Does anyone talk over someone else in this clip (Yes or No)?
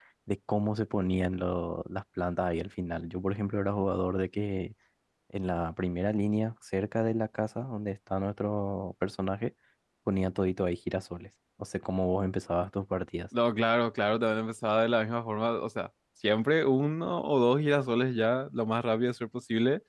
No